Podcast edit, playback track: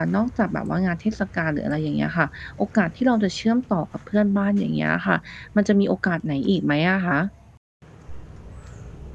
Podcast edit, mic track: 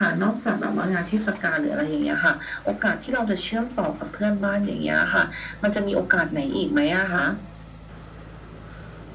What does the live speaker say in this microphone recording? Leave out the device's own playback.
none

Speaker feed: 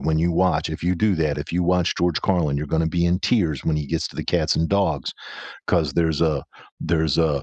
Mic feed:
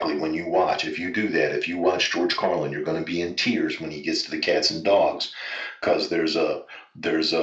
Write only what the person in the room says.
none

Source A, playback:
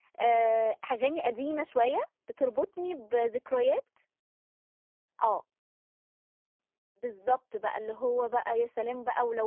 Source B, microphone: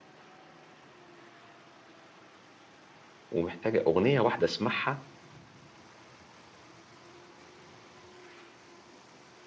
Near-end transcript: ومحتاجة أغنية واحدة أسمعها،

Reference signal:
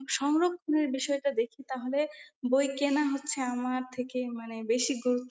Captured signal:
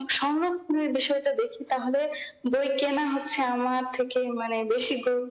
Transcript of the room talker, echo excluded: none

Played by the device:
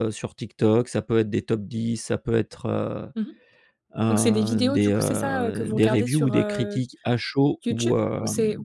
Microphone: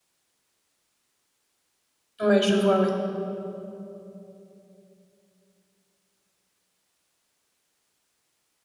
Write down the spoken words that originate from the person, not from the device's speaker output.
Ouais, je vois, ouais.

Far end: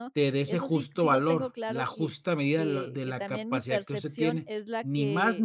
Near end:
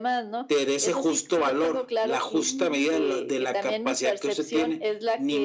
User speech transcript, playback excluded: Ujú.

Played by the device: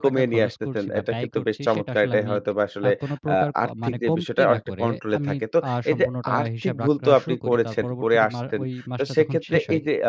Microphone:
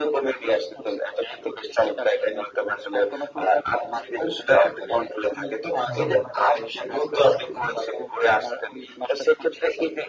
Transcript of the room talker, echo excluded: হ্যাঁ।

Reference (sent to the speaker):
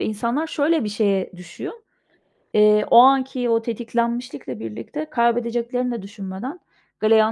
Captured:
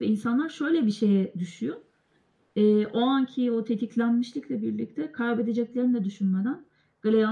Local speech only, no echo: none

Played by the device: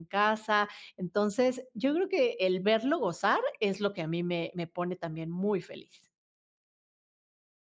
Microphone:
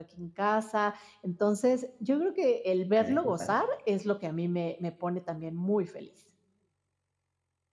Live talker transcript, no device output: Ay, que padre.

